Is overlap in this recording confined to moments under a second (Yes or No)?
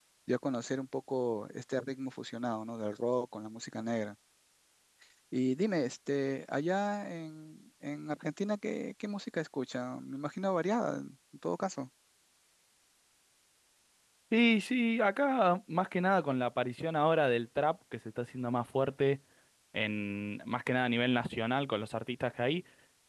Yes